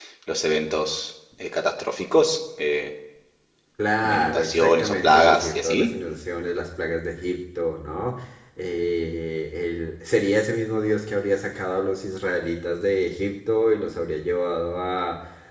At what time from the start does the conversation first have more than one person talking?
4.0 s

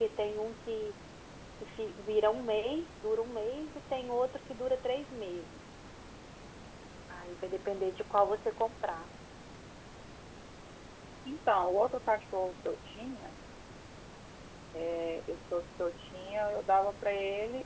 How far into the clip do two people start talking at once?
none

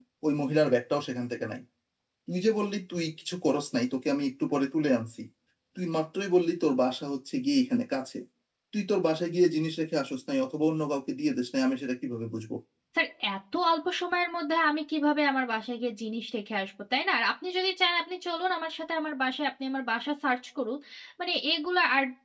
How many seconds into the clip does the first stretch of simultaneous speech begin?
none

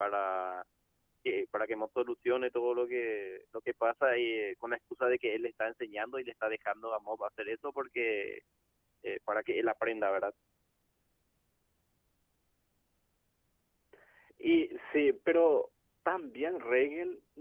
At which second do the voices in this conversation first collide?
none

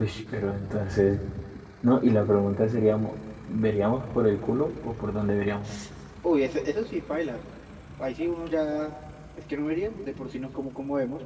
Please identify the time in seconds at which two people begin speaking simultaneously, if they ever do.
none

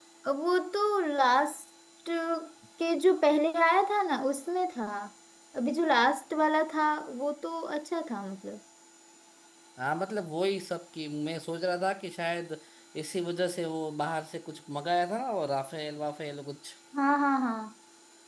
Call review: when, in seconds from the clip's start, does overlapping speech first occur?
none

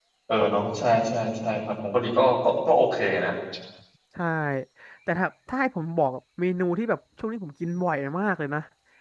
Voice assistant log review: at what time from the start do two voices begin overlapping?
none

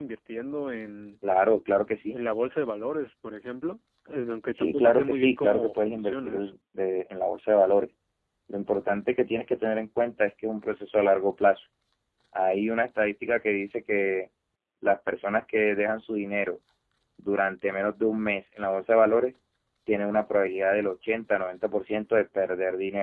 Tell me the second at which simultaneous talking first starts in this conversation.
4.5 s

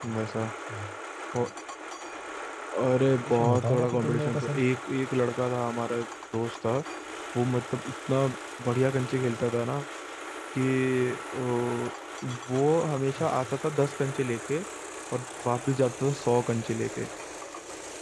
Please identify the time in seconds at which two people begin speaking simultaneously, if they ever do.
3.2 s

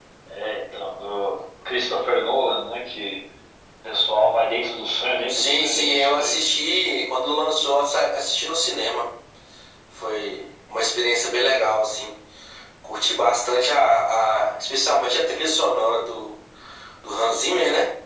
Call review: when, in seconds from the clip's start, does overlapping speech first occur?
5.3 s

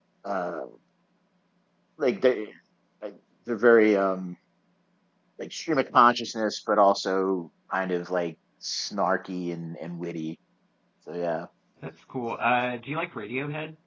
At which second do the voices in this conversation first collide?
none

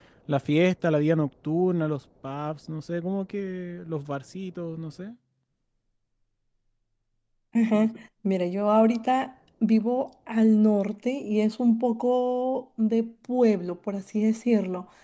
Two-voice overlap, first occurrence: none

